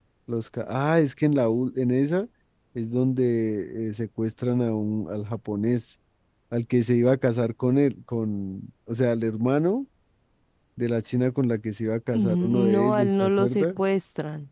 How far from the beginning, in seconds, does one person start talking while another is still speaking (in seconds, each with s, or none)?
12.1 s